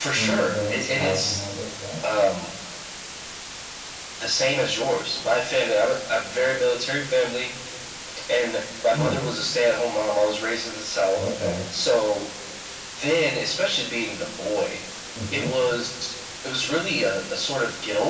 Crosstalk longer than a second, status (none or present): present